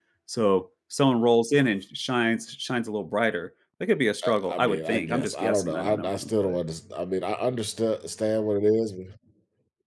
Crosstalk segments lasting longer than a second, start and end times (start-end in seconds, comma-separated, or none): 4.2-6.6